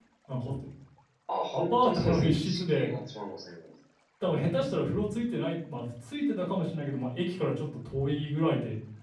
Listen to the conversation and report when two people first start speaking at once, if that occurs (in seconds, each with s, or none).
1.5 s